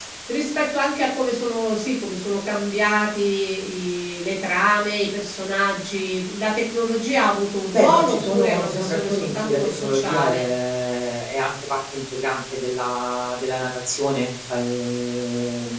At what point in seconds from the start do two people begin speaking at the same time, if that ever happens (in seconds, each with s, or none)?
7.7 s